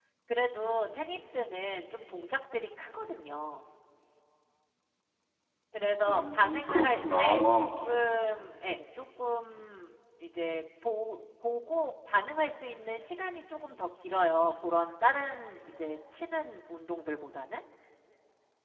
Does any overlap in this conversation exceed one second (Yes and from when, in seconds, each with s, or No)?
Yes, from 6.1 s